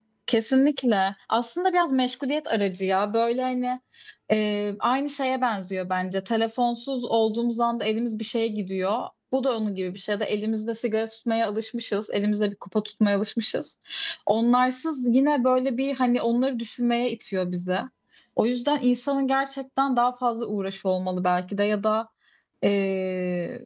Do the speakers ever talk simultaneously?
No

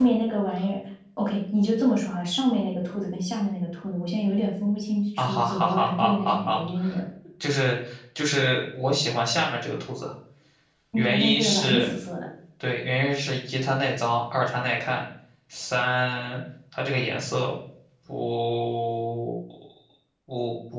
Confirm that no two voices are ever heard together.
No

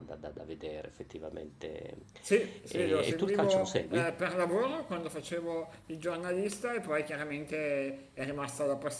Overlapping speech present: Yes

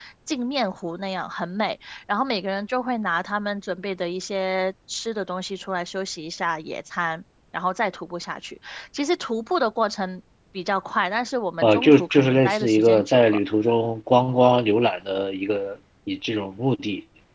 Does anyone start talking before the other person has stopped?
Yes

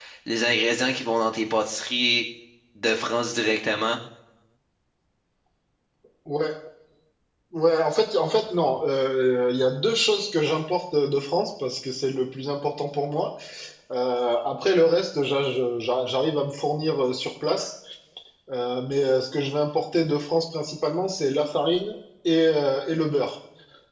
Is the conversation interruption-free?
Yes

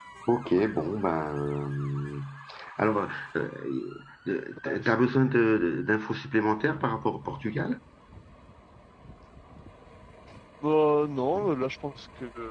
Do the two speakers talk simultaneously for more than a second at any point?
No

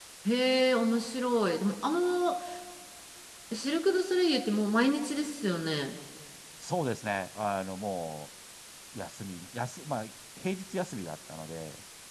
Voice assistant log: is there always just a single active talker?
Yes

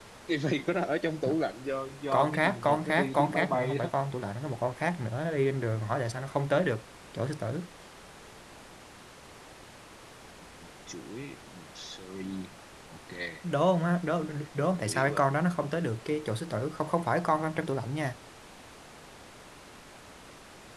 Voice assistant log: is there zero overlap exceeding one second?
No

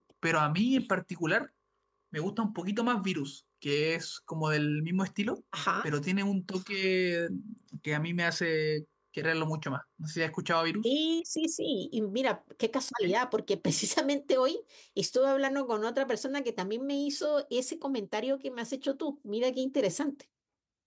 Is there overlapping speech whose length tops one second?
No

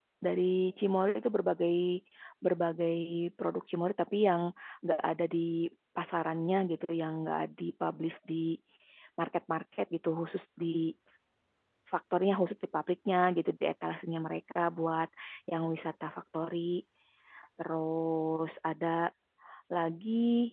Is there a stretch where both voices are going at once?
No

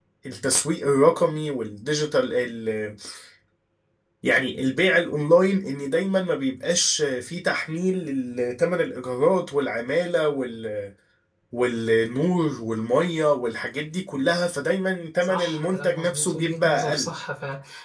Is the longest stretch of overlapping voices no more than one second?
No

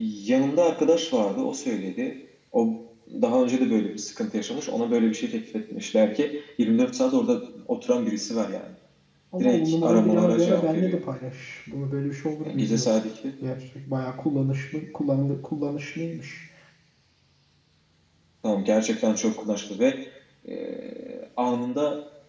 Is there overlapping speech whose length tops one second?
Yes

